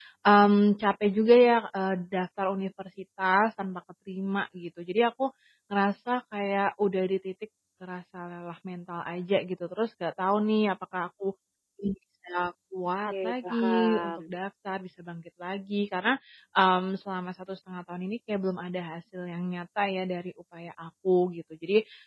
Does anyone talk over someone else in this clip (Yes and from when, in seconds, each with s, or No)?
Yes, from 13.1 s